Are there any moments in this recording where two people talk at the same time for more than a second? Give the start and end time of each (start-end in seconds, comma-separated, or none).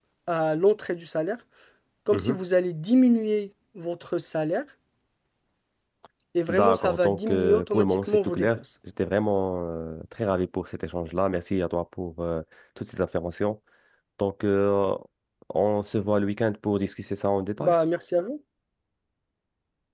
6.5-8.6